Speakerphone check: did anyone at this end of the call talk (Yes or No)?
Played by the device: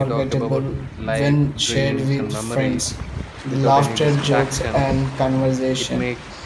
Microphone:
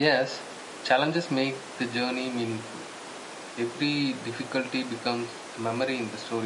Yes